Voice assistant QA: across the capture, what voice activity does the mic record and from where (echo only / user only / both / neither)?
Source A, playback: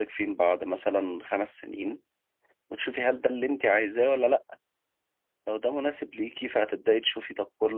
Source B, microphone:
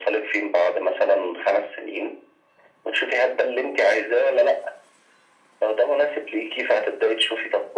echo only